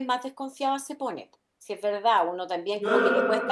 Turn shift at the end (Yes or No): No